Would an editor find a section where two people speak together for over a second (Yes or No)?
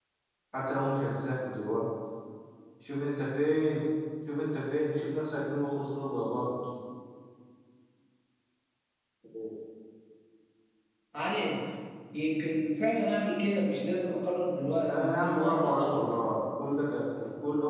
Yes